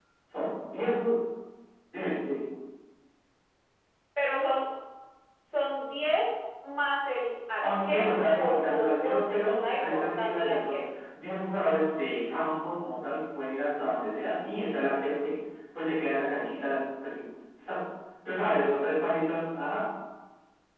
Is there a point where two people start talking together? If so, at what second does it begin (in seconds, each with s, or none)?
7.6 s